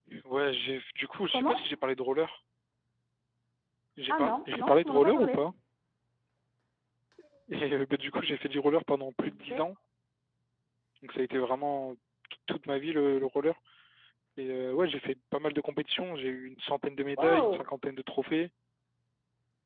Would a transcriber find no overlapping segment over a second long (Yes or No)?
No